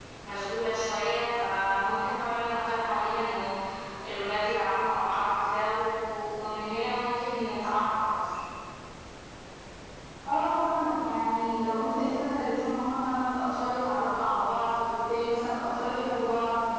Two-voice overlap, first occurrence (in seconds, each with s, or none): none